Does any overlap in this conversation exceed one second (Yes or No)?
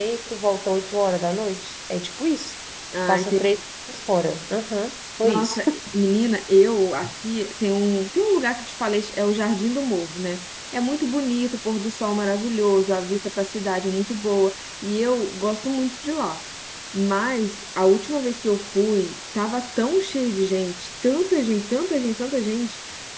No